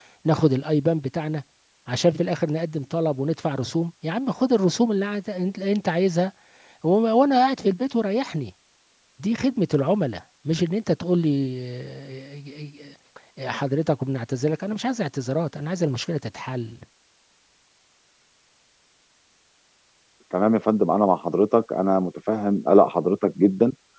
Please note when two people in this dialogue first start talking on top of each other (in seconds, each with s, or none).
none